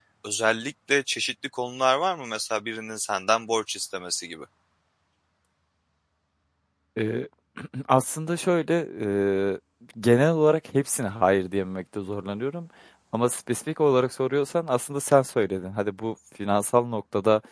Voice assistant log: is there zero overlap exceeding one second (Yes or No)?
Yes